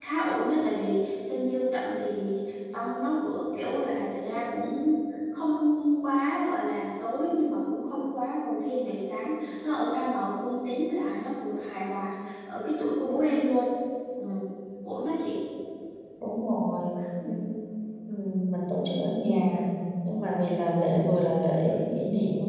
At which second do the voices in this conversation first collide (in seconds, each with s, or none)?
none